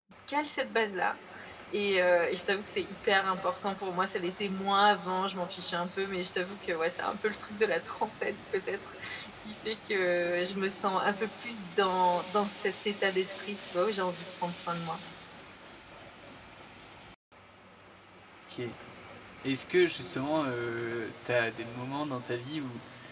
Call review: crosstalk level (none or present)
none